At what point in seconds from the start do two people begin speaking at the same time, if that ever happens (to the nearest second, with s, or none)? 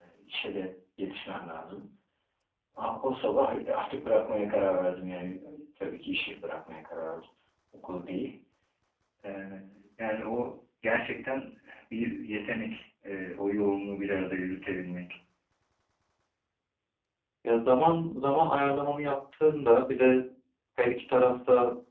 none